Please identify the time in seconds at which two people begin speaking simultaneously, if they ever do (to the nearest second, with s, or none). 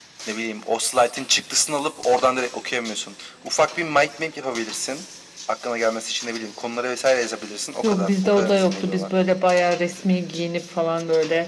8 s